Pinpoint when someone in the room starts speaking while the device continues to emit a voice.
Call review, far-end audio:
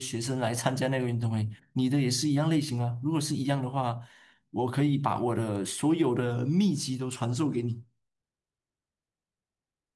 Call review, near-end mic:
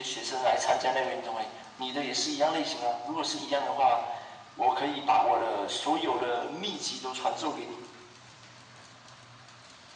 none

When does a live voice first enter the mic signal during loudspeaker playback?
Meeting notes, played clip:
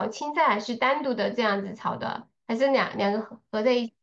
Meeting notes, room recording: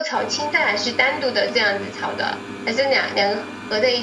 none

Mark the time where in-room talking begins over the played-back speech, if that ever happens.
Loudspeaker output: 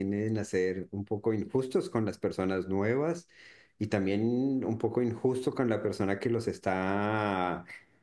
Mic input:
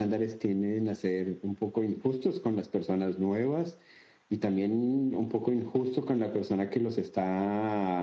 none

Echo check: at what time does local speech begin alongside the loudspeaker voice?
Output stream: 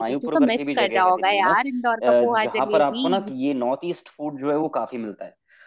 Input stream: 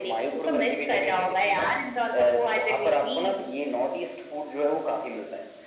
none

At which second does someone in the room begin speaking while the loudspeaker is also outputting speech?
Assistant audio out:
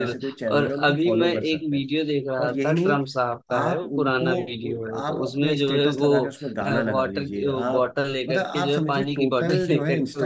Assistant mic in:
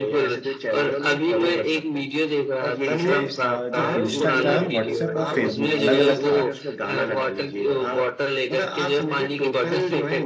2.9 s

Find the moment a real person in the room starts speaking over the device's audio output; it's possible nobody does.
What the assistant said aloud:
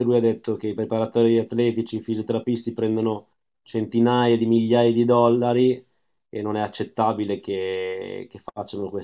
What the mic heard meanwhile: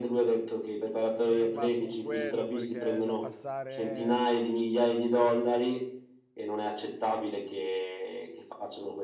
1.1 s

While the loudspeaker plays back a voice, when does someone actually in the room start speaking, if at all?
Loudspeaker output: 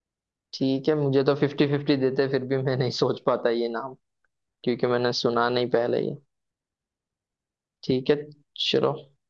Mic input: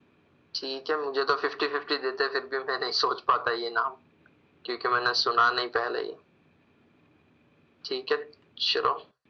none

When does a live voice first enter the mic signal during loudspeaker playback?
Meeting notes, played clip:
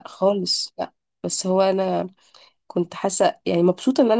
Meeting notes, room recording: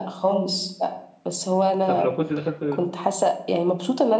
1.9 s

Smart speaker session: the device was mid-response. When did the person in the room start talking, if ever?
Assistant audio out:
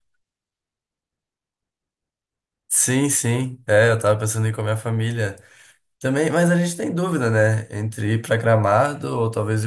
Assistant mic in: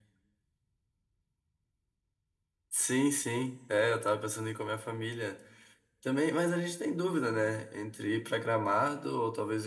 none

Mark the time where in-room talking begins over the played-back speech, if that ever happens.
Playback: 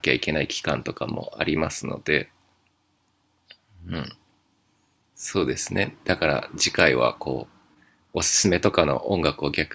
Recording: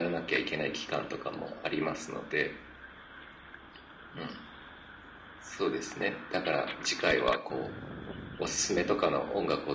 none

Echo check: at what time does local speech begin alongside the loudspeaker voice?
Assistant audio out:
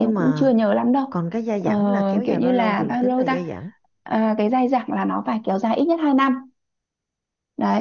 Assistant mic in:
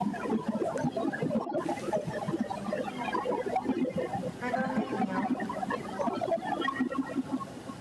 4.4 s

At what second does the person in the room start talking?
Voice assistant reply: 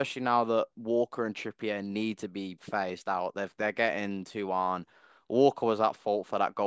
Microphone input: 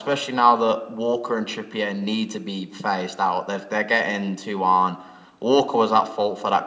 none

